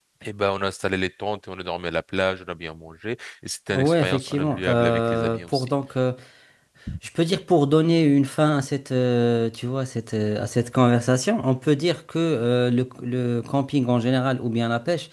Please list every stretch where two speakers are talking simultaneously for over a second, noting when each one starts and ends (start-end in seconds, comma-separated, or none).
3.7-5.7